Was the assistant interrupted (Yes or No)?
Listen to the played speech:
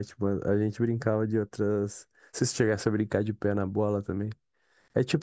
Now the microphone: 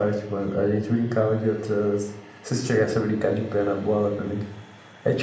No